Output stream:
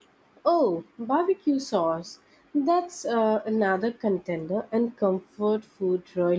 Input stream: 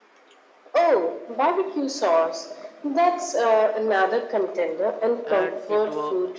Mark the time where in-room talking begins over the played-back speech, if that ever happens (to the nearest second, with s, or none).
5 s